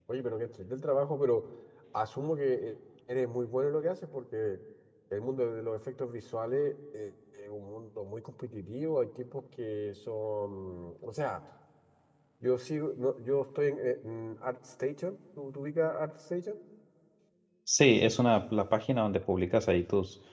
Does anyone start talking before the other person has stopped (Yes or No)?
No